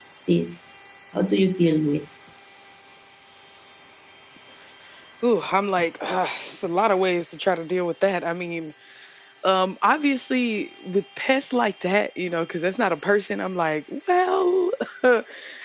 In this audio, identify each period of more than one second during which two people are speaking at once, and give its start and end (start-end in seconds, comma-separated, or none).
none